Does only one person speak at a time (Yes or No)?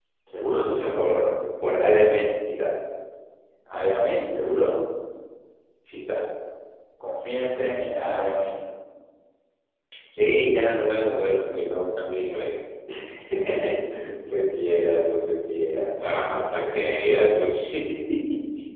No